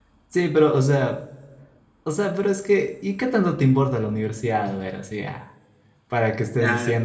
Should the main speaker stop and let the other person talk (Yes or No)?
No